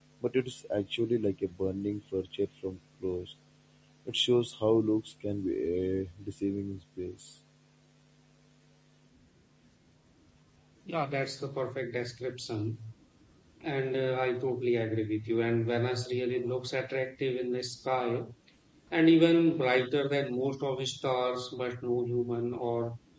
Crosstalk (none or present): none